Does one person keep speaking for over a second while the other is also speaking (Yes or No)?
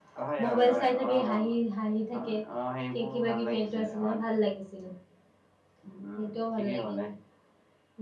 Yes